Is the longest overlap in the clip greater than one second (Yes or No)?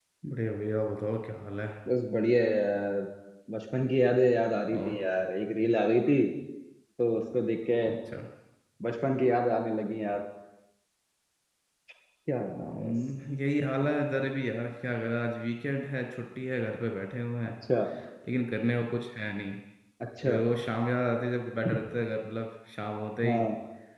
No